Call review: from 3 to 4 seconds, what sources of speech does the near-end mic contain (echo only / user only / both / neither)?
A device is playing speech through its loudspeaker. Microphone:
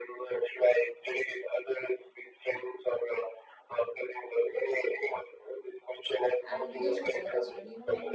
echo only